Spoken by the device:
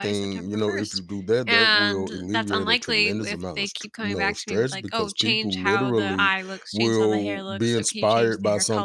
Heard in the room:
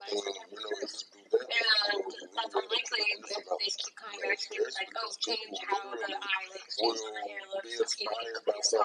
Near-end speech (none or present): none